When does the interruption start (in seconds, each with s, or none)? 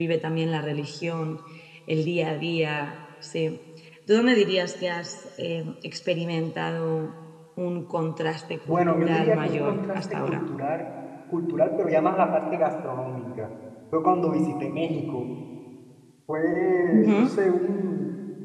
8.7 s